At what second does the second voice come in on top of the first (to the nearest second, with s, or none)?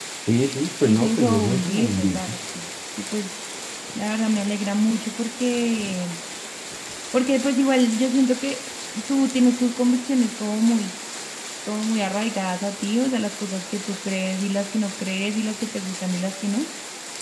1 s